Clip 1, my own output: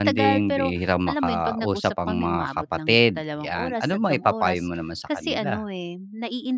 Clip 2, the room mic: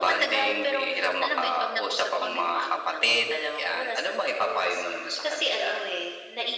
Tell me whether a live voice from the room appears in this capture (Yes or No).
No